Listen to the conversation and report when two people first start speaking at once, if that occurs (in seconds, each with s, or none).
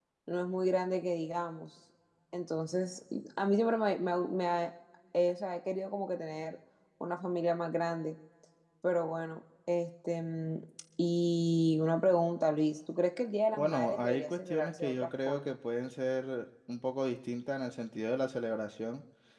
13.5 s